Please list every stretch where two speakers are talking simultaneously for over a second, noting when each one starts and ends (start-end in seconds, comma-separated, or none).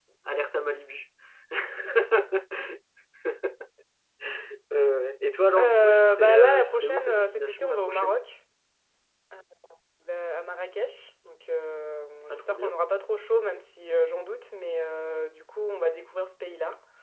5.6-8.2